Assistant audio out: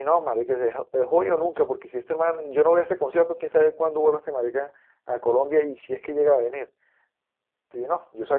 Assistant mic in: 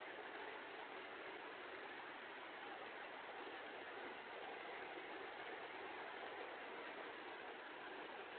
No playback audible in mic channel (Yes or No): Yes